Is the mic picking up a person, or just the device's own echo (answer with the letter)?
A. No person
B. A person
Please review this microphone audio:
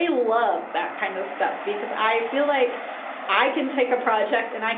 B